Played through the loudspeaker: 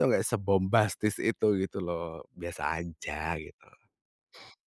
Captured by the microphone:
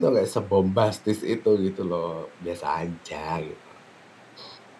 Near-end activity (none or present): none